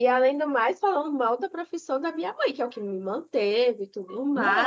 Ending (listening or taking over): listening